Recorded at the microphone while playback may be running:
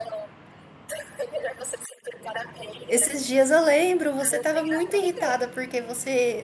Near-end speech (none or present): present